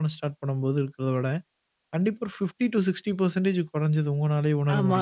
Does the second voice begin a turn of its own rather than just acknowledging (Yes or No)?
Yes